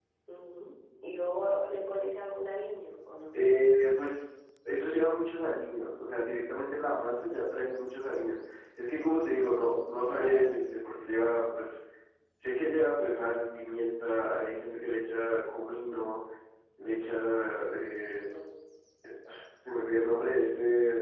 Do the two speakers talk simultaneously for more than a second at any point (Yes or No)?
No